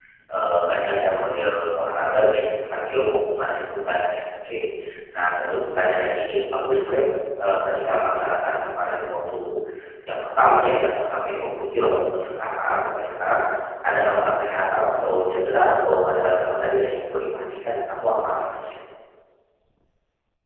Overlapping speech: No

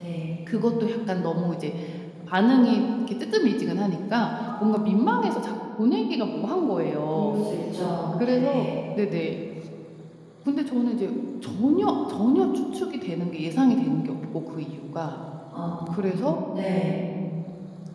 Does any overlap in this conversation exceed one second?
No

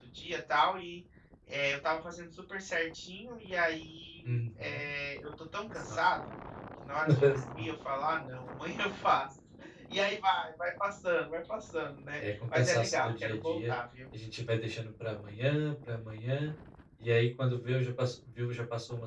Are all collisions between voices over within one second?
No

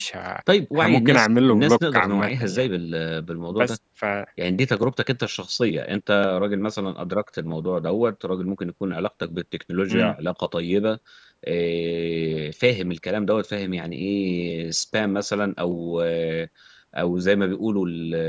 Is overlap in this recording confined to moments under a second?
No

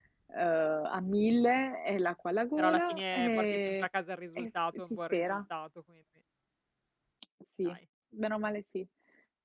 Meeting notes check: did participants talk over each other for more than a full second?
Yes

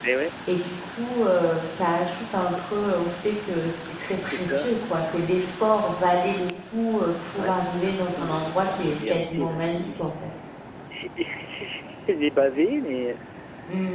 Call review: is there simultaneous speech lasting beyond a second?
Yes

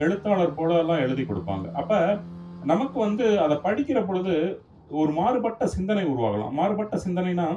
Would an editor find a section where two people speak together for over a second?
No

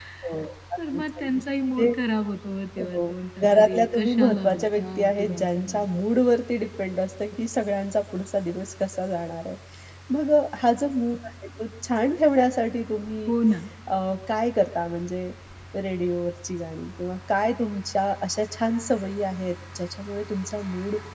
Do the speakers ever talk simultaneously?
Yes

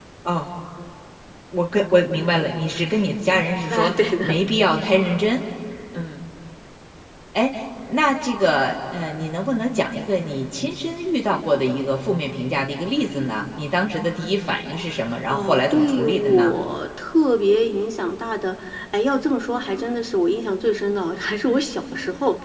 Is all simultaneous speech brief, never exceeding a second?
No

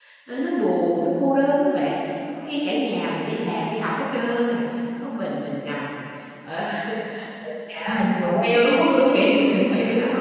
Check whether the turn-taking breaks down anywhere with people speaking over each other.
Yes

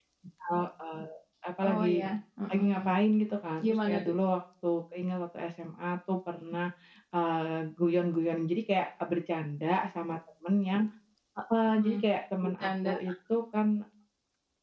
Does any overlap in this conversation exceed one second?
No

